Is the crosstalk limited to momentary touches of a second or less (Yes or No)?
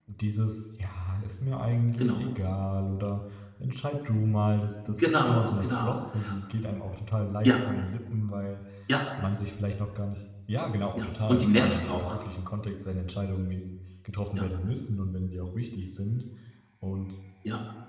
No